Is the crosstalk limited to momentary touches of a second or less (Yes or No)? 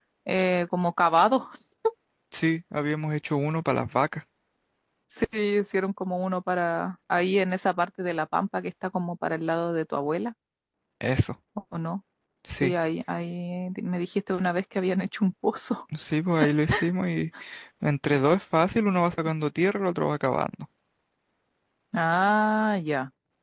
Yes